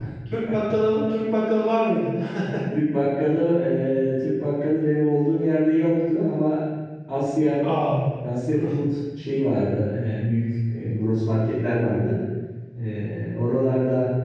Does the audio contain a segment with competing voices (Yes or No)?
No